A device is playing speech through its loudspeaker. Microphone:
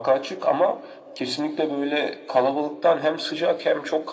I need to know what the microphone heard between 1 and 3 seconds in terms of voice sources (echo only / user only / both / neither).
echo only